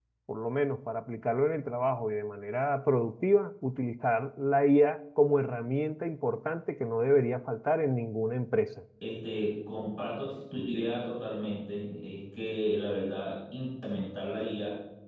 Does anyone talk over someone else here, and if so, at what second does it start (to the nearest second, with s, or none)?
none